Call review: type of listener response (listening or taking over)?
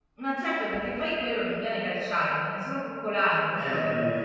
taking over